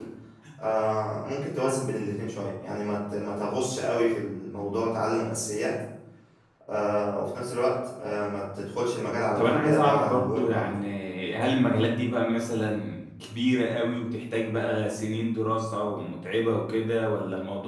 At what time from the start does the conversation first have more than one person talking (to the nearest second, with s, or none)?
9 s